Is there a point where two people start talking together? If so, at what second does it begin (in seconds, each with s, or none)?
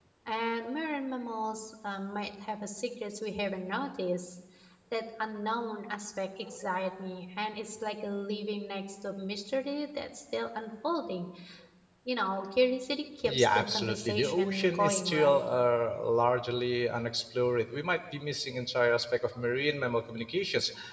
13.2 s